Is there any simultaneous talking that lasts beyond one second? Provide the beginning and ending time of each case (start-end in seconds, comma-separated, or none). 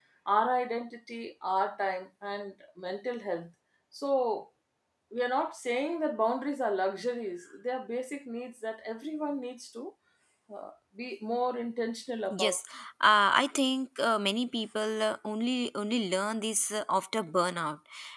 none